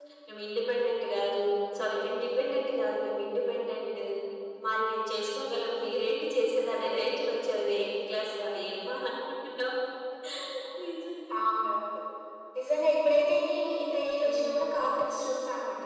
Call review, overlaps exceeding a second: none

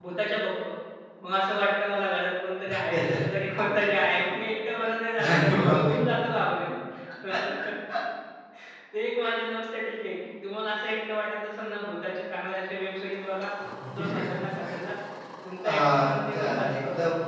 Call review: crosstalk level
present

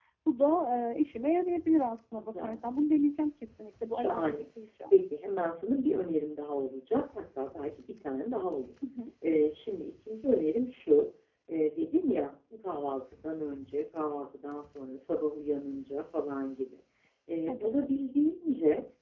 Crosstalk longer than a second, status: none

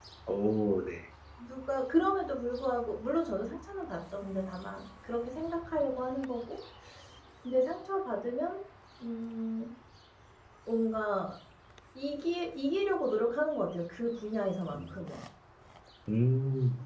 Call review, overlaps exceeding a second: none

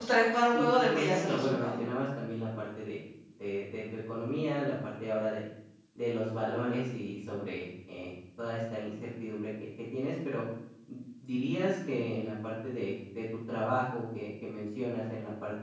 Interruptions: present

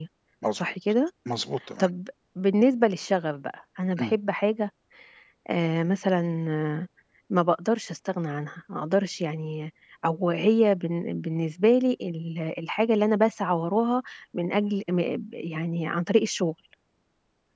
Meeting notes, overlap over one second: none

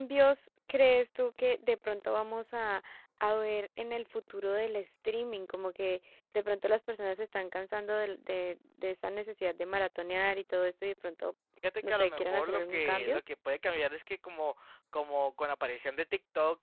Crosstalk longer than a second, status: present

